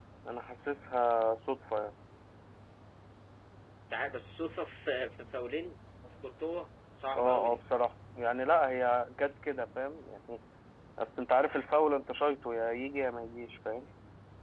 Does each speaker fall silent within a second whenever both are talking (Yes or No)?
Yes